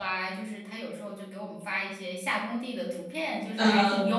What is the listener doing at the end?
listening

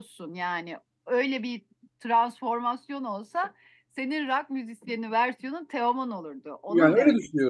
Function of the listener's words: taking over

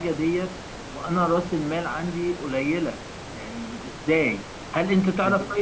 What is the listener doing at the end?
listening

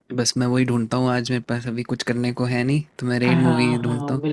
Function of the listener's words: taking over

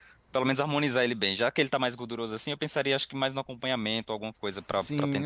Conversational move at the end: taking over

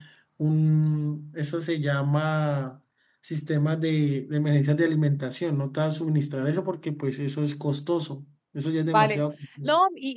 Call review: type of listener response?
taking over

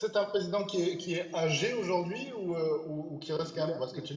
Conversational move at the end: listening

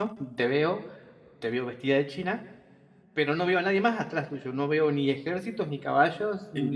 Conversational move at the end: taking over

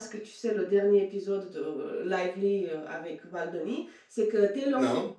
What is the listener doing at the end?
listening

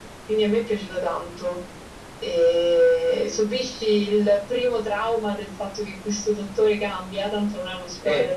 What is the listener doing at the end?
taking over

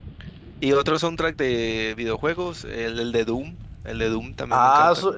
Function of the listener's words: taking over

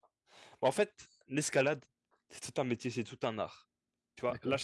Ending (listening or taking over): listening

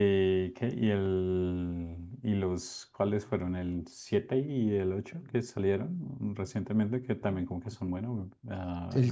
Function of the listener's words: taking over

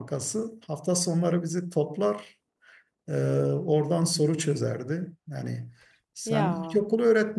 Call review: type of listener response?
listening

